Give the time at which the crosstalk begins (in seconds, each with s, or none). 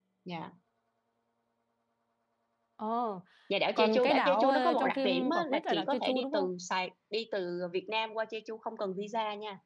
3.8 s